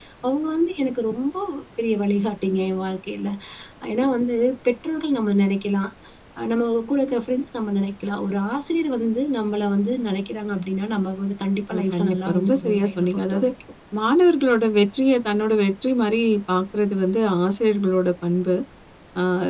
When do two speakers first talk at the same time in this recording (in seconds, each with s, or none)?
11.7 s